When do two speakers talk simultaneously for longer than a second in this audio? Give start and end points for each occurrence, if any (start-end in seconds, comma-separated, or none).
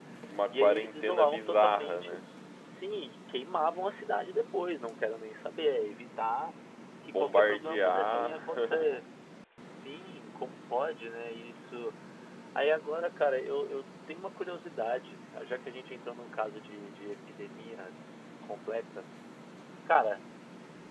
0.5-2.2, 7.0-8.9